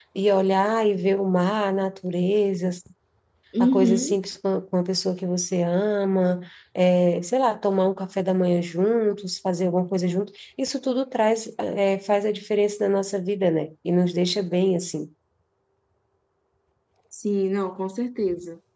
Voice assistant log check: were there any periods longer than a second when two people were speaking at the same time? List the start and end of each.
none

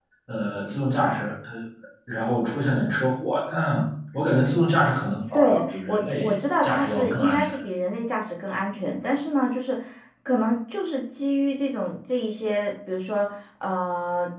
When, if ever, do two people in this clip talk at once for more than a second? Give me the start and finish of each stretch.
5.3-7.5

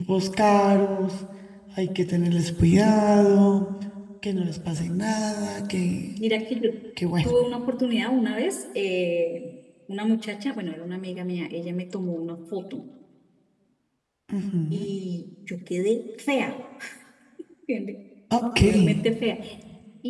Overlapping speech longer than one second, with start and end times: none

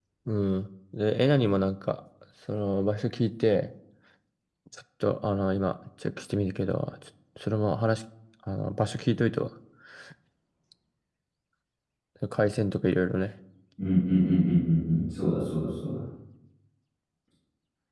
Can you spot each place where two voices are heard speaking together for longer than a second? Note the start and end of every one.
none

